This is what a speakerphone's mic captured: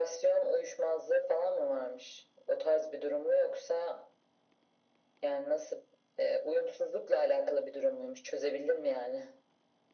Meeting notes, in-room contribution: none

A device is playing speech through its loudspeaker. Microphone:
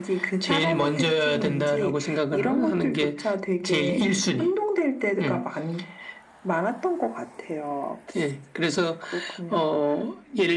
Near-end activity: none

